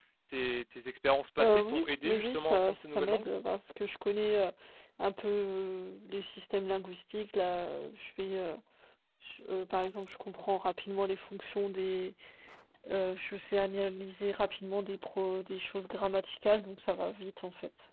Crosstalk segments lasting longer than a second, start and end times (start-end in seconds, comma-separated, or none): 1.4-3.3